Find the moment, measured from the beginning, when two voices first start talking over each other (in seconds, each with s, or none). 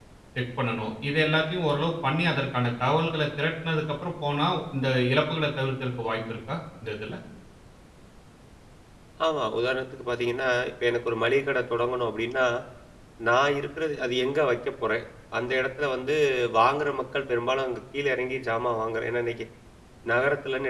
none